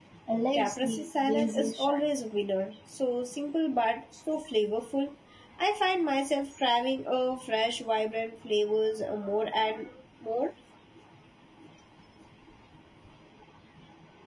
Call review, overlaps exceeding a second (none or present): present